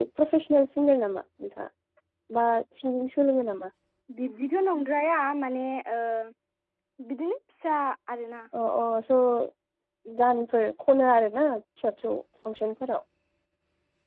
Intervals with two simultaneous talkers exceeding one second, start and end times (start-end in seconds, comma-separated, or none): none